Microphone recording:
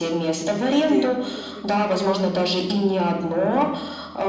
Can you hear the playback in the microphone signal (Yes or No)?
Yes